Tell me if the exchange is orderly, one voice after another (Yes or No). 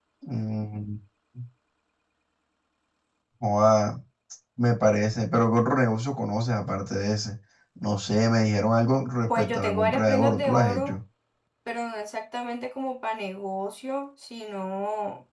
No